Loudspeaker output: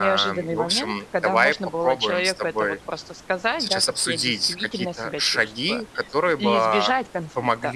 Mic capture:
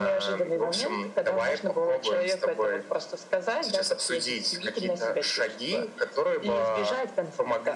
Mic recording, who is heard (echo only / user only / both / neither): echo only